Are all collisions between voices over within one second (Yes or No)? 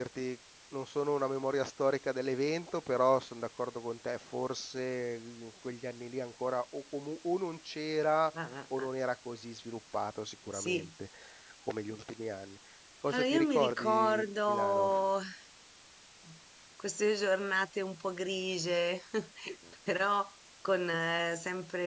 No